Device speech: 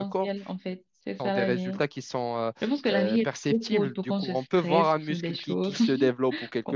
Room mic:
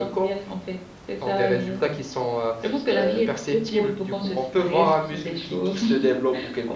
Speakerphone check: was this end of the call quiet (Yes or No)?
Yes